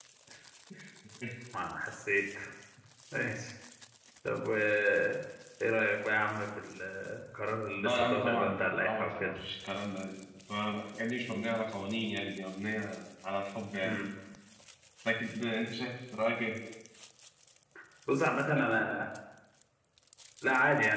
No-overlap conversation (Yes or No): No